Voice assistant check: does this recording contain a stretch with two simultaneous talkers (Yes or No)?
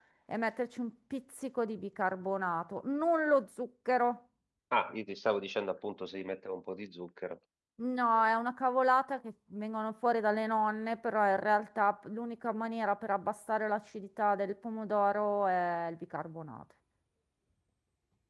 No